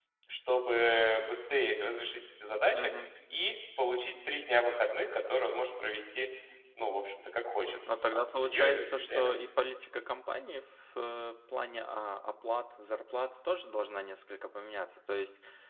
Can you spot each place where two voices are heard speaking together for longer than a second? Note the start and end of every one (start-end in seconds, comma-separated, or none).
8.1-9.3